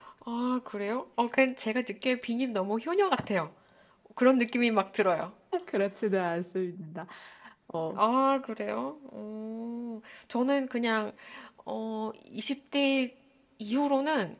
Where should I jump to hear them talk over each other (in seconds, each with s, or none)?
none